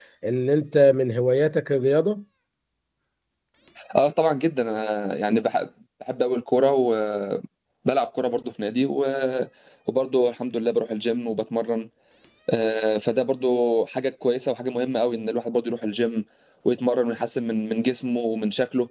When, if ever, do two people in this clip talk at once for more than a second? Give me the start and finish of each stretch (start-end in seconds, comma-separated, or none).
none